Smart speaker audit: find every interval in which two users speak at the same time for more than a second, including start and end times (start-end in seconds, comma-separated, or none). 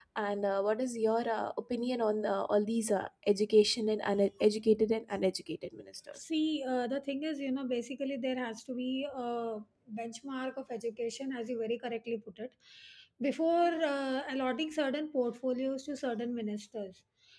none